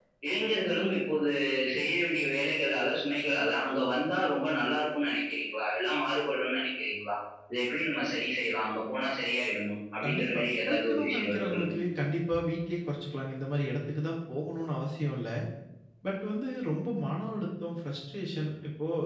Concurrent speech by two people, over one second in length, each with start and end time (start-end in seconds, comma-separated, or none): 10.0-11.8